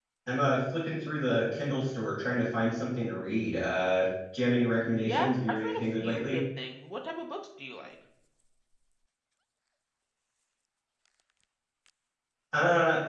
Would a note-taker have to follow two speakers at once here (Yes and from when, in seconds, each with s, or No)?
Yes, from 5.0 s